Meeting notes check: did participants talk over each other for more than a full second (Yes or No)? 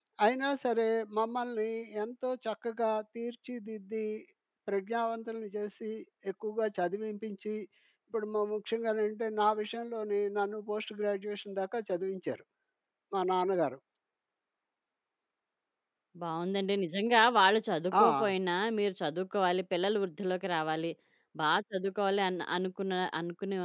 No